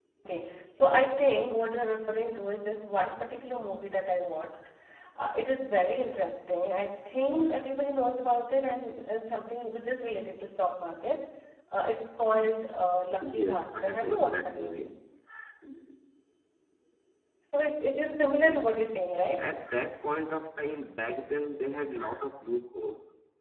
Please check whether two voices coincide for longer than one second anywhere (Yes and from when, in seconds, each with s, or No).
Yes, from 13.4 s